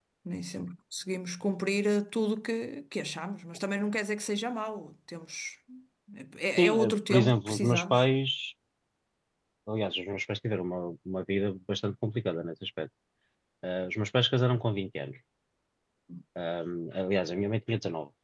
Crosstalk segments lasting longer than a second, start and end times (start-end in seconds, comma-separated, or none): 6.6-8.1